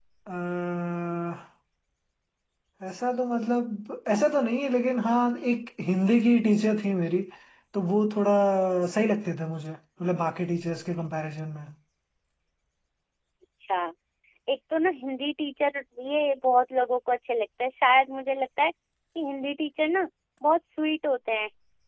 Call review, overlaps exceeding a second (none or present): none